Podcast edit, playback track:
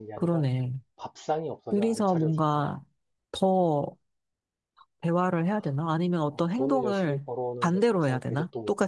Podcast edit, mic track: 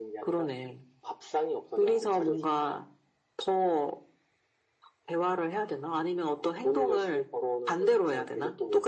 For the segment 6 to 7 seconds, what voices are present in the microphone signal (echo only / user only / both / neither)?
echo only